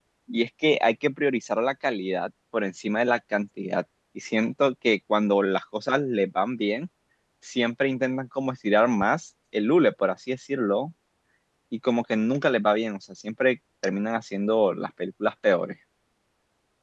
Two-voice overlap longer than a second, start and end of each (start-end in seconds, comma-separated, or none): none